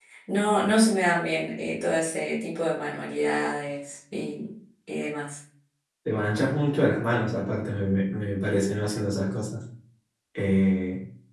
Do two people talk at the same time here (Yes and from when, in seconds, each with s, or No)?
No